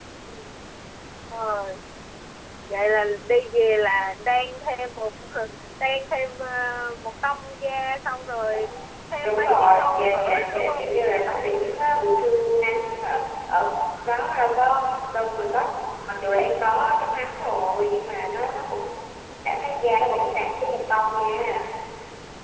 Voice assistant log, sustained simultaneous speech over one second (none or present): present